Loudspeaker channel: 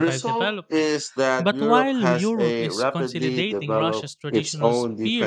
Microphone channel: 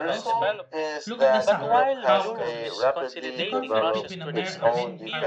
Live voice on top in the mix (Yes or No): No